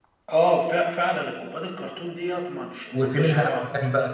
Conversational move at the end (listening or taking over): taking over